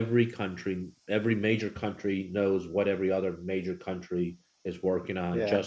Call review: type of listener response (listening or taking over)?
taking over